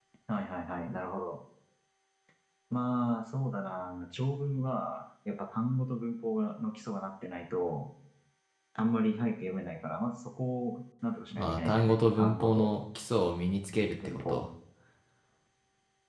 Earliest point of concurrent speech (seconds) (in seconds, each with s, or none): 11.3 s